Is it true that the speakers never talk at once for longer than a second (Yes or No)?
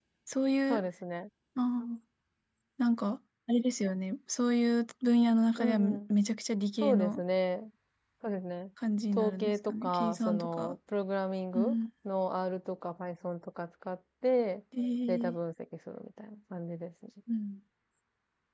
No